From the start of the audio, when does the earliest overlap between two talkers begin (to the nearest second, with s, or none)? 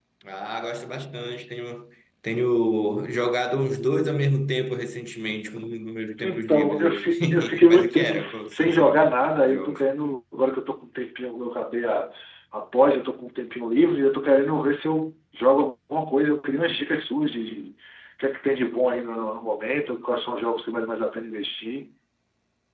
6 s